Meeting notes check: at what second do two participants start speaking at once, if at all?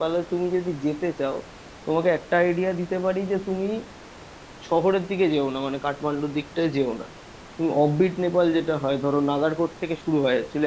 none

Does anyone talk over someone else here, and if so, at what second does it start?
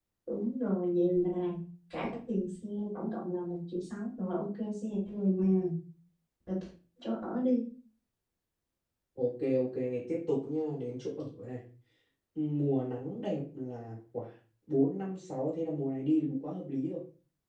none

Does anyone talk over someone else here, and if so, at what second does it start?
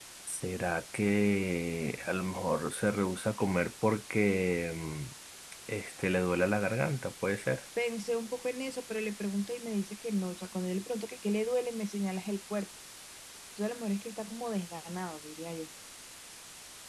none

